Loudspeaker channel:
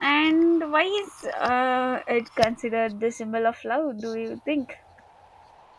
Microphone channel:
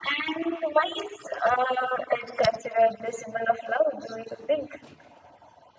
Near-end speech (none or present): none